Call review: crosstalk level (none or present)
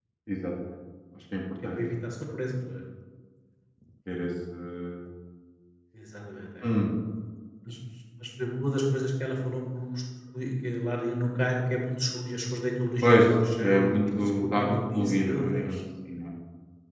present